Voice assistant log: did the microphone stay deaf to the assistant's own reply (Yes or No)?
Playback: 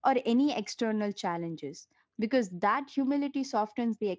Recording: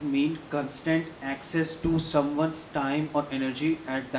Yes